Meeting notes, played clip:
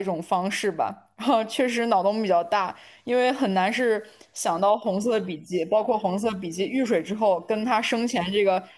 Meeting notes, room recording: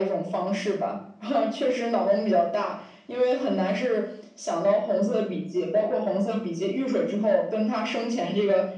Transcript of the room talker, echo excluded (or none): none